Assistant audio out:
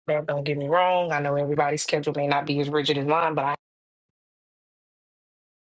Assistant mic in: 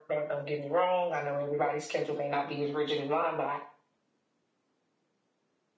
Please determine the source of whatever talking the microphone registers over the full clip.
echo only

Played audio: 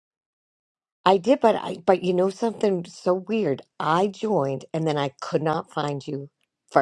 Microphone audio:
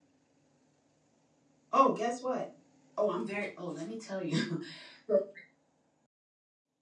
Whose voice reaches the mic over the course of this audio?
user only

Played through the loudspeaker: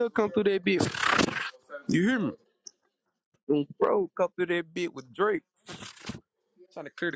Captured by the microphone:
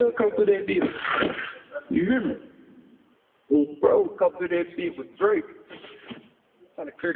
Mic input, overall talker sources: echo only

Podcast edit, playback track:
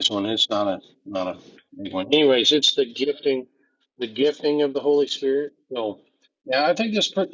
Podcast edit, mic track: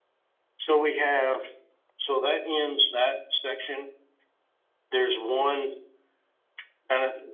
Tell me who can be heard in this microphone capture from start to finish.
user only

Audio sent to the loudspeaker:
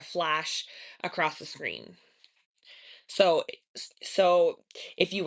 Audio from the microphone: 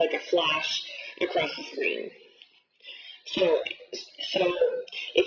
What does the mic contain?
echo only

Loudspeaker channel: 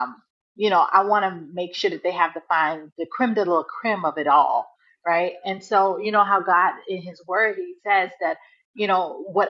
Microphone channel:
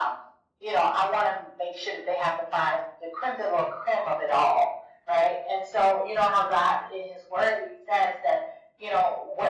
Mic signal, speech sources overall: echo only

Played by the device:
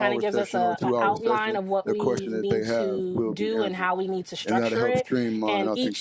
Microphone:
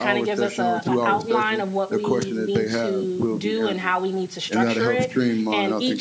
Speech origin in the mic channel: echo only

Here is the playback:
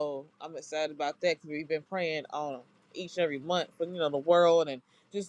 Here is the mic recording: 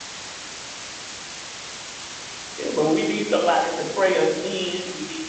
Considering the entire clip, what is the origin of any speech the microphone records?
user only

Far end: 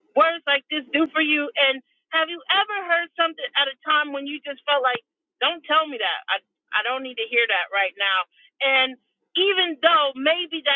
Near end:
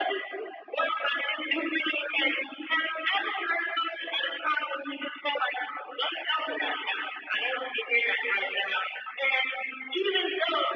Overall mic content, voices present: echo only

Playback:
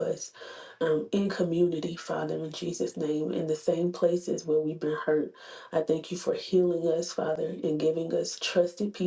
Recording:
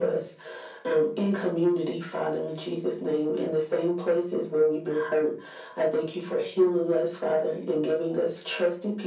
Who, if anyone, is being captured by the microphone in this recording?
echo only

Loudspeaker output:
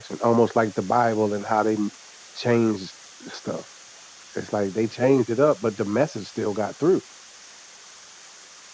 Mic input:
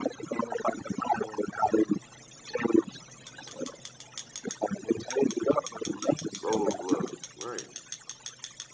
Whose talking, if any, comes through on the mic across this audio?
both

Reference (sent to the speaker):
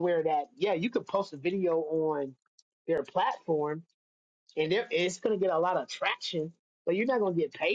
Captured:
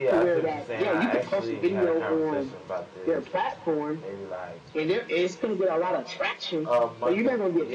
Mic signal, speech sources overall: both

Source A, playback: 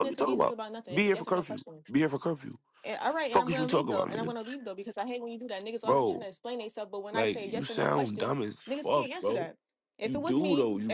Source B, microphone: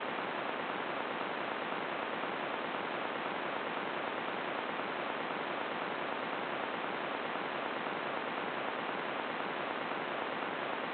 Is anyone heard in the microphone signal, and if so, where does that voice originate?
neither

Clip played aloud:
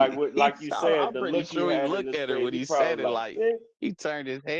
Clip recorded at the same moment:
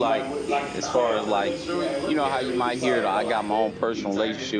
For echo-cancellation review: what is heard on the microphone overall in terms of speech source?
both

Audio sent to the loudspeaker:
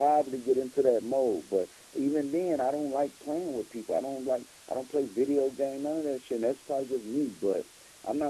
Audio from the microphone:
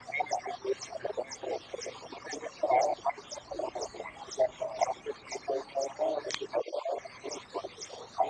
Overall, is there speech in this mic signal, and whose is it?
echo only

